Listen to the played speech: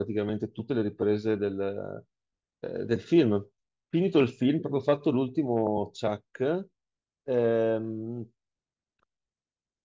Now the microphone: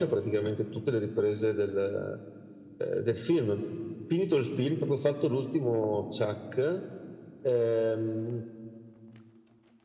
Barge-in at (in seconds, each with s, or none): none